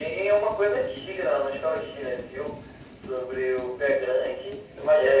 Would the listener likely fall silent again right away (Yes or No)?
No